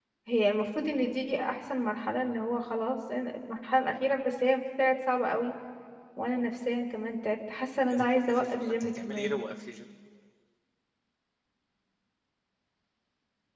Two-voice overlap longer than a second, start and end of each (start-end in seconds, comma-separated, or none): 7.9-9.3